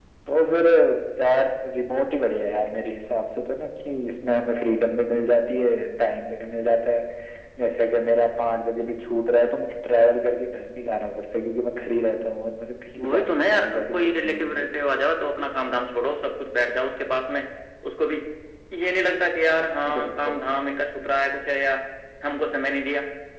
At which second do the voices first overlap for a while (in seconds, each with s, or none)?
13.0 s